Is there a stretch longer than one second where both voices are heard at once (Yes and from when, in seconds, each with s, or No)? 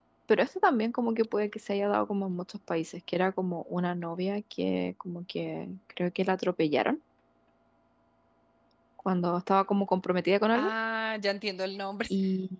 No